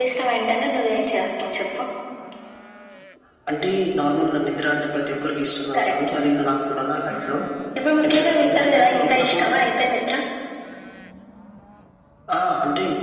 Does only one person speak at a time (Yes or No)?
No